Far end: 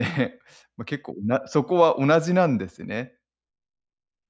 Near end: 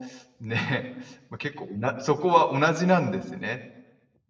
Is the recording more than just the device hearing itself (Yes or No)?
No